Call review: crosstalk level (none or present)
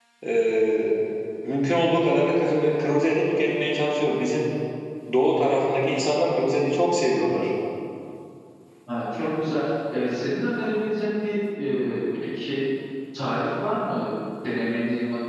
none